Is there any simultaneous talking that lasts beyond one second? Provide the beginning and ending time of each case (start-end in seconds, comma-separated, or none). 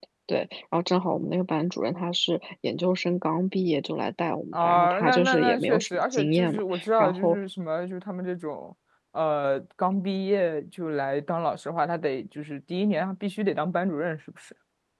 4.5-7.4